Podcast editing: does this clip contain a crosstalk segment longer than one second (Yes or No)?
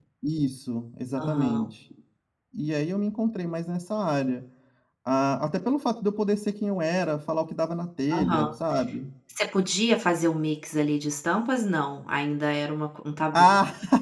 No